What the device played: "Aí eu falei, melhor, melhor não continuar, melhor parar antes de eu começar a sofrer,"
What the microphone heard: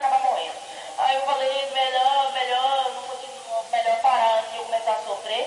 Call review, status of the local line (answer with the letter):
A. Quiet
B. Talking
A